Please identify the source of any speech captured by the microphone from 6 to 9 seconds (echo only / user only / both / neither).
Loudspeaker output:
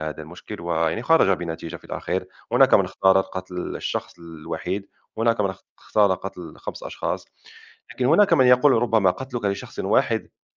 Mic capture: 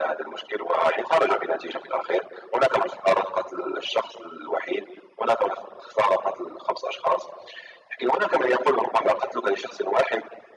echo only